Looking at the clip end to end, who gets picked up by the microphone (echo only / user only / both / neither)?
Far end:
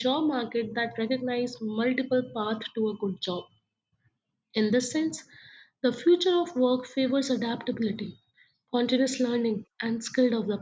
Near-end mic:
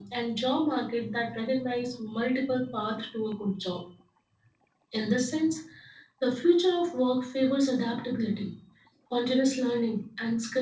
echo only